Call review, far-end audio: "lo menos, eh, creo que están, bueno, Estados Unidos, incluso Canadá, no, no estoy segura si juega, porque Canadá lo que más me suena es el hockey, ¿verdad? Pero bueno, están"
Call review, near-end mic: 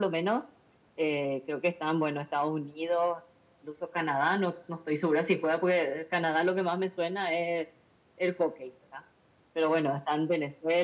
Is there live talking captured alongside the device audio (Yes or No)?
No